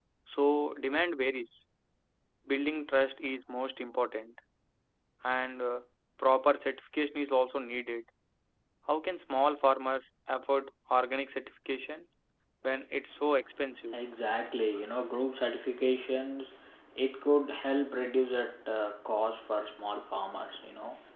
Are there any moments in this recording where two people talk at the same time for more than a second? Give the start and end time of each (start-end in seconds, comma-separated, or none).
none